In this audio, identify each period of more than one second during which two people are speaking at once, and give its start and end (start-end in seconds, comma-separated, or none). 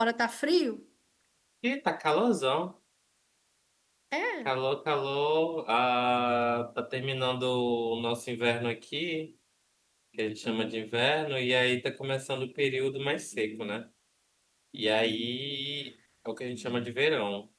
none